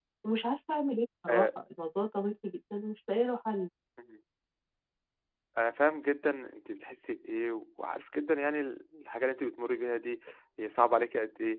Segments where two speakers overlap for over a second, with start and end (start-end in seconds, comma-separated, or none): none